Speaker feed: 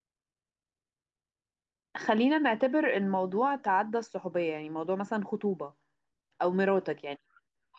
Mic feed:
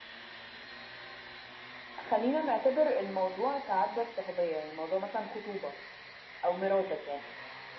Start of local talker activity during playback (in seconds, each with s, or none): none